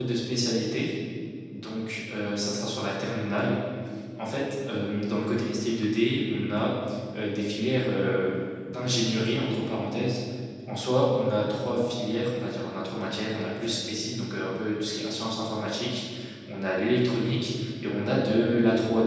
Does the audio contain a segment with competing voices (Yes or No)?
No